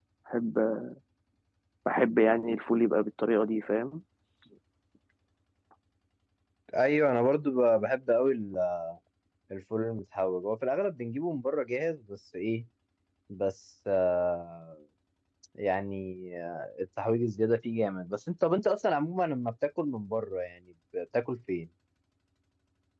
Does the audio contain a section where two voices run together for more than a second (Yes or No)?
No